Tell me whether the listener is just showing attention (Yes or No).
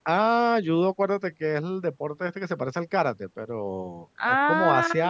Yes